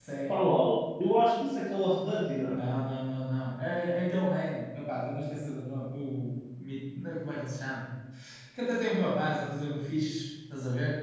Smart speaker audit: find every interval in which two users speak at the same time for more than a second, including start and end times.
none

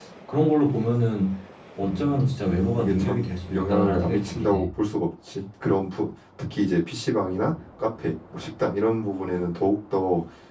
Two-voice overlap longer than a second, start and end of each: 2.8-4.6

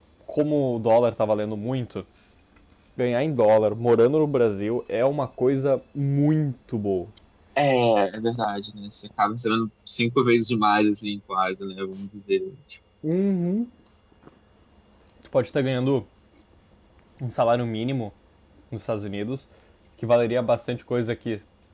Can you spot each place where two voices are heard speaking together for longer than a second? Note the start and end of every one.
none

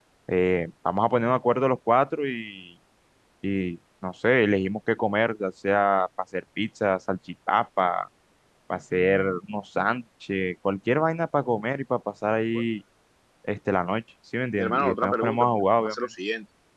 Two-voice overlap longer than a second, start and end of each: 14.6-15.9

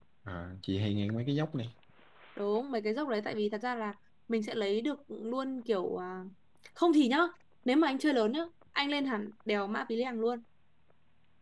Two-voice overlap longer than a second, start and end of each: none

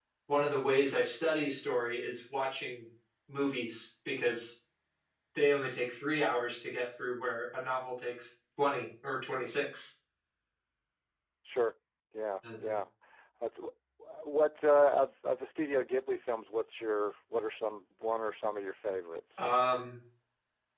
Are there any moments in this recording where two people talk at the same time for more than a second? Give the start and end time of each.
none

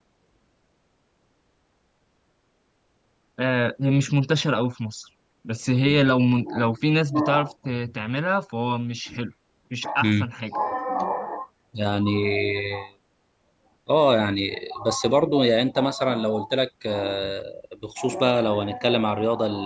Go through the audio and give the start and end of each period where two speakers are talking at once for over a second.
none

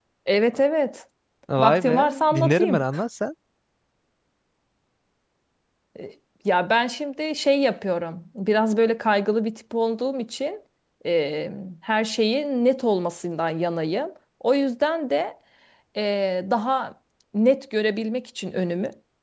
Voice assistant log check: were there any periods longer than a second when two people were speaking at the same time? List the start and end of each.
1.6-2.8

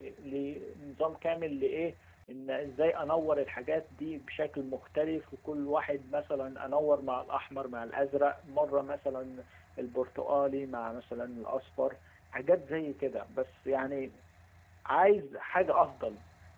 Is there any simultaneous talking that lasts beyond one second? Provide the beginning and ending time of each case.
none

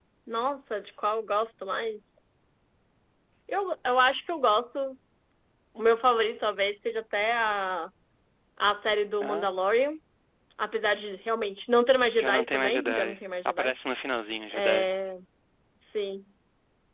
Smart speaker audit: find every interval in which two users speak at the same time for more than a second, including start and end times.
12.2-13.7

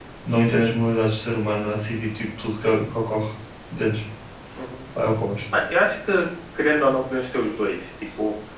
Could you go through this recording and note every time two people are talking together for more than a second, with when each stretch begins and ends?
none

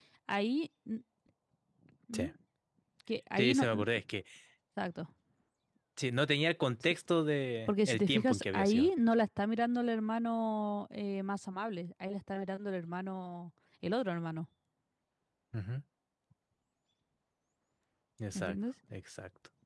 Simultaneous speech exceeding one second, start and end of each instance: 7.7-8.9

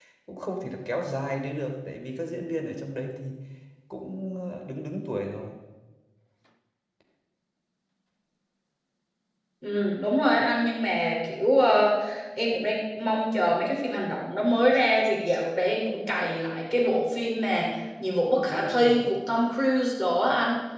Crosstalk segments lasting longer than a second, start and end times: none

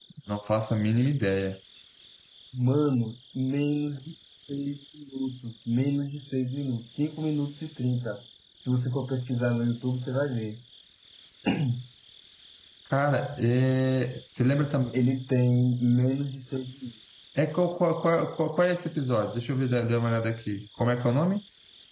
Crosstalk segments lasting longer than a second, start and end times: none

